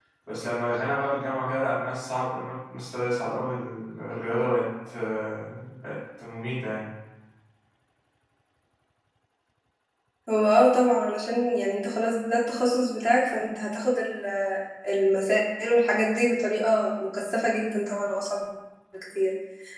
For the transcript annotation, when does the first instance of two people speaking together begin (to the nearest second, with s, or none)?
none